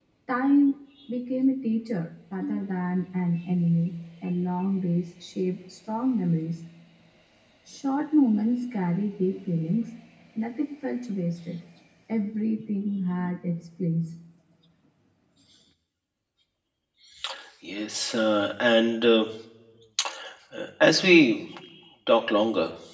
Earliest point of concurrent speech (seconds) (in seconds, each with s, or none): none